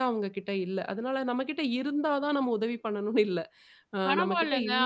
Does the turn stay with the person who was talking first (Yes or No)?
No